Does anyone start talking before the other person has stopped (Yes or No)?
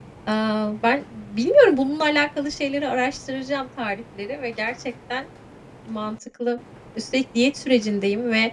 No